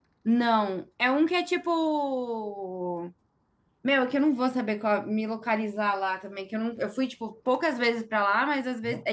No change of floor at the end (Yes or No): Yes